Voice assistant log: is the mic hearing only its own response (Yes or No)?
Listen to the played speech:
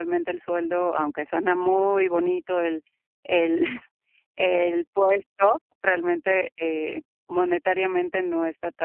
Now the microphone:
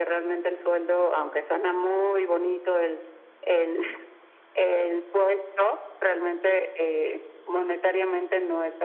Yes